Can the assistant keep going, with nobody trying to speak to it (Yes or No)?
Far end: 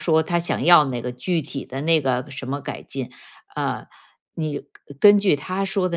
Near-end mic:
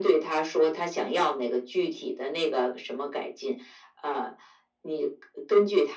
Yes